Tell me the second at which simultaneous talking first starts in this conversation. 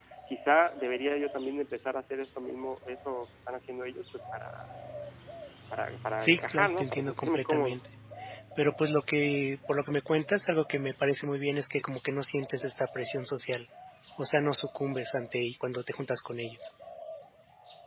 6 s

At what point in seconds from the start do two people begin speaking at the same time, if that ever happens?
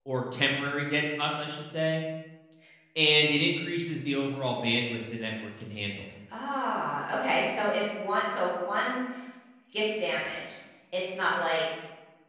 none

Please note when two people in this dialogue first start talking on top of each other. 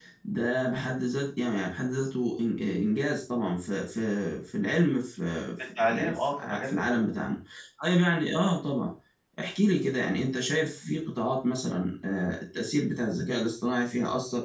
6 s

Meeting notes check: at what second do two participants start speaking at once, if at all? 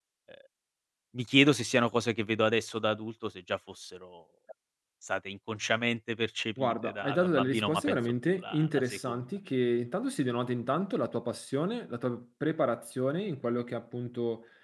7 s

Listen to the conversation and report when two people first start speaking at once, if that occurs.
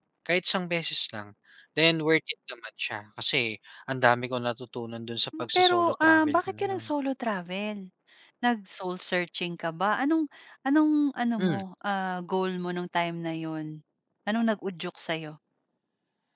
5 s

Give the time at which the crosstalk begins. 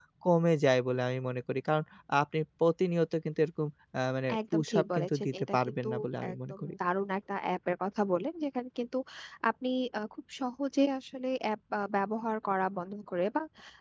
5 s

